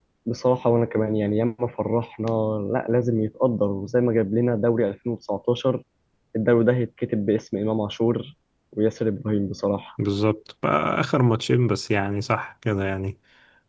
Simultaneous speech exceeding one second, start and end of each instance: none

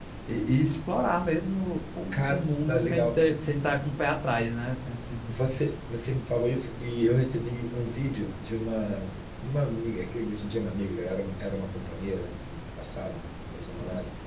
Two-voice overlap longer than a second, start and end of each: none

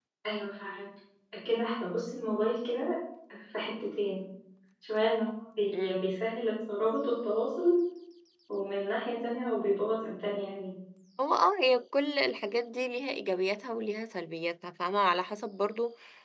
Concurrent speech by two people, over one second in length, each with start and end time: none

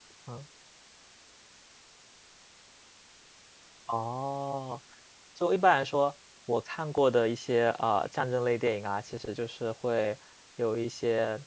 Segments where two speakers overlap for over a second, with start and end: none

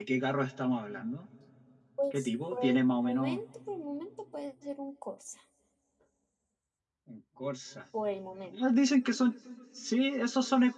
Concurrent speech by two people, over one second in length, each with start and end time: 2.1-3.4

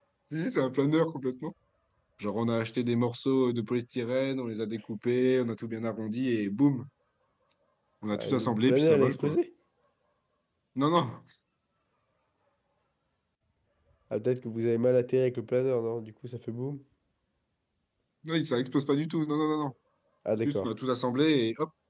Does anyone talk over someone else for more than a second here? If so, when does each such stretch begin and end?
8.1-9.3

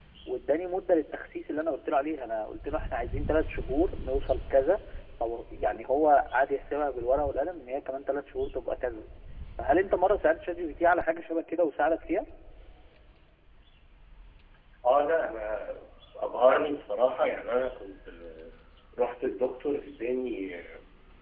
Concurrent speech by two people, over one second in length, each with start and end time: none

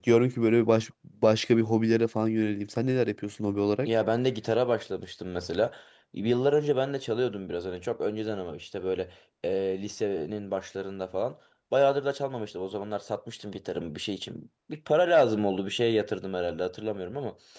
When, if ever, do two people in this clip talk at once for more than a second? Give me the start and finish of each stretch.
none

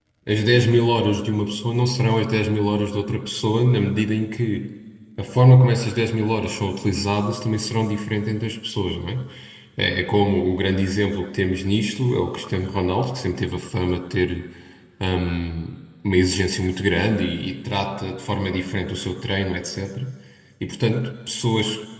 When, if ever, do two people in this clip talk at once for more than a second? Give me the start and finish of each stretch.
none

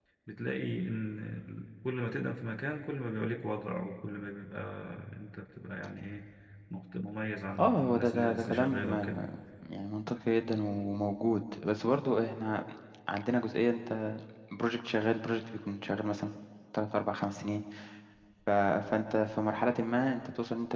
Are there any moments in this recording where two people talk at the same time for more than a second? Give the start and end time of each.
7.6-9.2

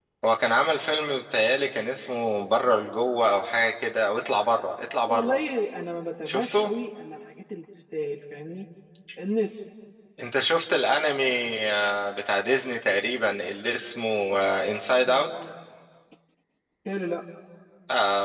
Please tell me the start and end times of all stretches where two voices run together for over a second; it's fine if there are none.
none

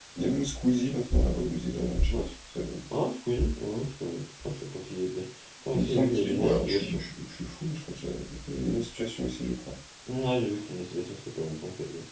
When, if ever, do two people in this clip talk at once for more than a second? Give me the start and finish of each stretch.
5.7-7.0

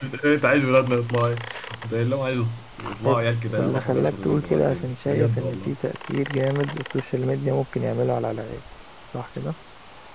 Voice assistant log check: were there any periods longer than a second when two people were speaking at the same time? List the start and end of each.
3.0-5.8

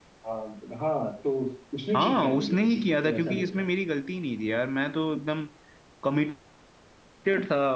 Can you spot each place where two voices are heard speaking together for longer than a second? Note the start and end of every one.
1.9-3.6

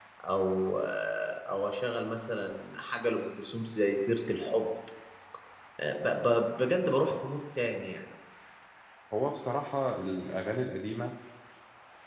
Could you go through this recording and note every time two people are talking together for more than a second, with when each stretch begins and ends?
none

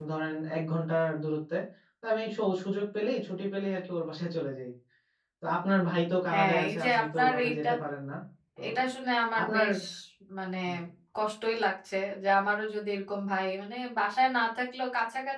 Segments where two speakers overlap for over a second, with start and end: 6.3-7.7

